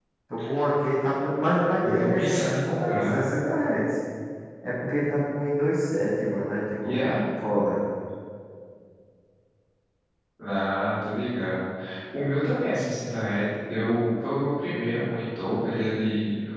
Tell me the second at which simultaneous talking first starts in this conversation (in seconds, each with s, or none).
2.0 s